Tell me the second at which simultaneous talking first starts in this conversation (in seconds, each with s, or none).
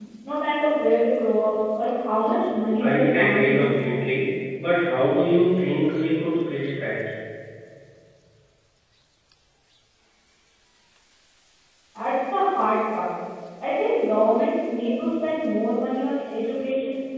2.8 s